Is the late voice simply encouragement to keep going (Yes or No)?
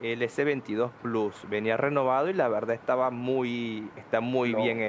No